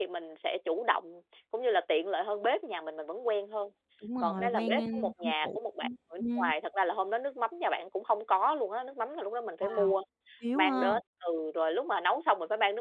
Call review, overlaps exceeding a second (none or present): present